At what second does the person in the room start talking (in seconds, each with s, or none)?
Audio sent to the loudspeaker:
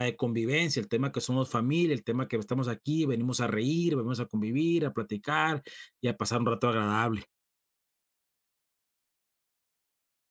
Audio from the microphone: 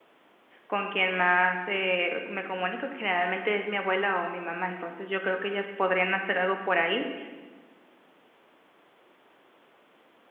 0.6 s